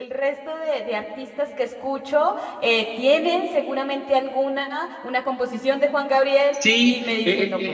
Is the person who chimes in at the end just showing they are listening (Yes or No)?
No